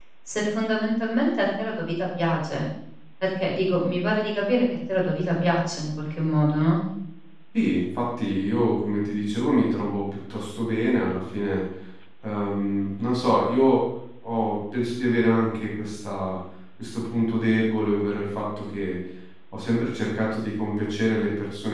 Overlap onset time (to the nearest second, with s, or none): none